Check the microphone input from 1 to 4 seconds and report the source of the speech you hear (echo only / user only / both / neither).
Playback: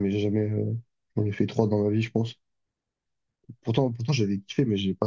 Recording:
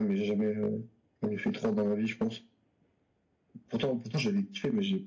echo only